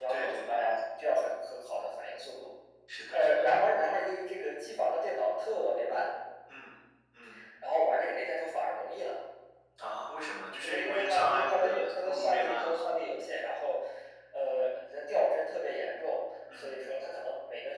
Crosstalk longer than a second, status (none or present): present